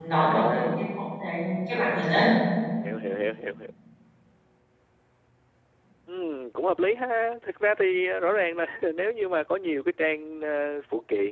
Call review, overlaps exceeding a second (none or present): none